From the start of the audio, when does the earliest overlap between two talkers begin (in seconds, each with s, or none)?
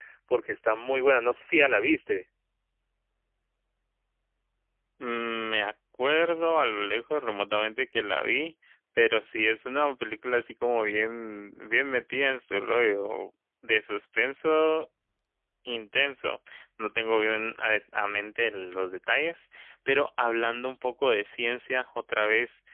none